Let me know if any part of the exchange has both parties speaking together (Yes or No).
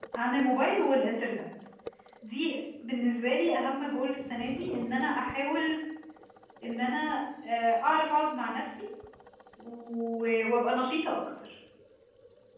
No